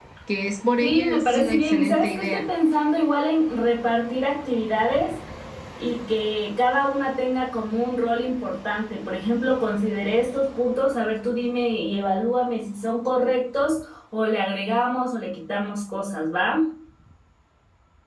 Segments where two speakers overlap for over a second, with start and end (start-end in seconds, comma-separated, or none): 0.8-2.4